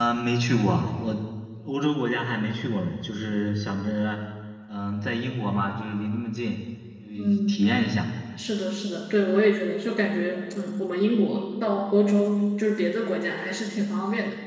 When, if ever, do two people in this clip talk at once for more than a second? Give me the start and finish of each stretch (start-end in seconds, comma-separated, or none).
none